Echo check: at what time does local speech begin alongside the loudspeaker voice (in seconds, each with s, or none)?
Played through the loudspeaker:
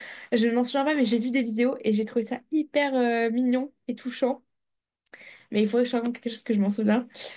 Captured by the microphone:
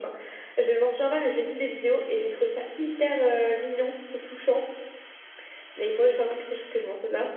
none